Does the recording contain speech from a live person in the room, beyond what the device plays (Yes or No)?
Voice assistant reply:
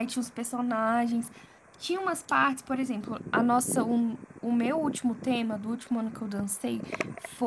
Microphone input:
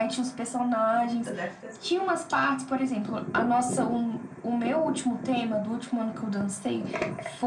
Yes